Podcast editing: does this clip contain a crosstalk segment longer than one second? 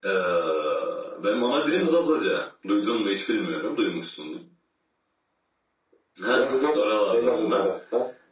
Yes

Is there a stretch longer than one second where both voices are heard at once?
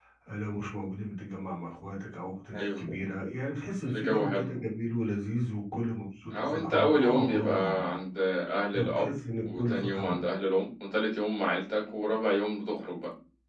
Yes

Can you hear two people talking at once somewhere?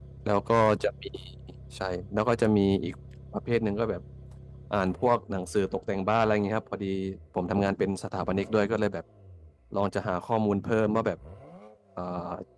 No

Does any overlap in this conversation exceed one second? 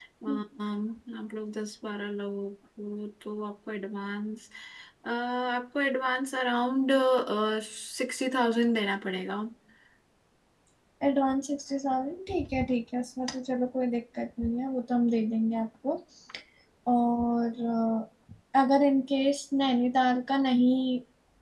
No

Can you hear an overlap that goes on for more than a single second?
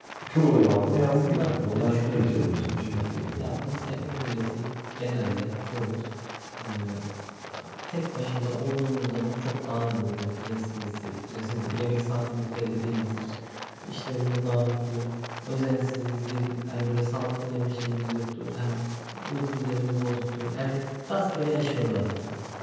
Yes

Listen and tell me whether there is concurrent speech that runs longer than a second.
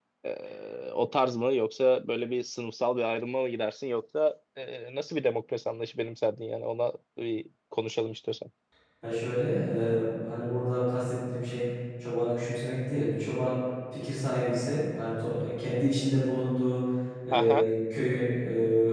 No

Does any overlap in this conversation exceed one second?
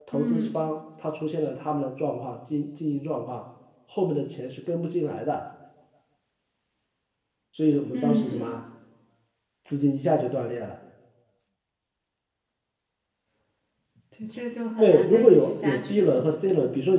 Yes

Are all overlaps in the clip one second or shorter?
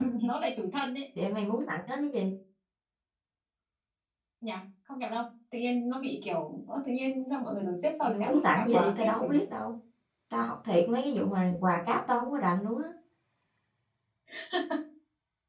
No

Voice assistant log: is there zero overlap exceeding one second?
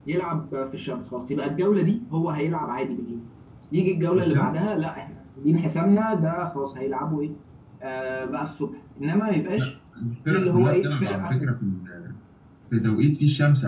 No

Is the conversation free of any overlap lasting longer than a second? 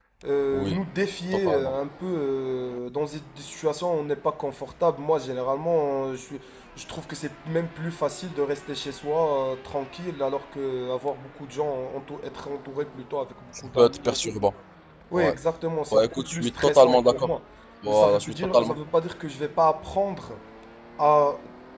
No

